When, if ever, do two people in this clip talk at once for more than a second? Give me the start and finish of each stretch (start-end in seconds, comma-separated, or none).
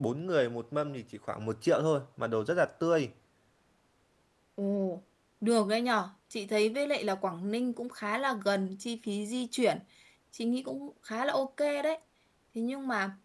none